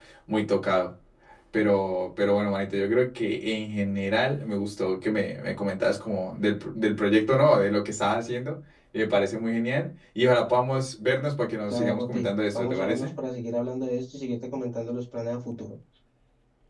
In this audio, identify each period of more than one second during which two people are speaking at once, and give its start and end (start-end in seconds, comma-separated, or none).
11.7-13.1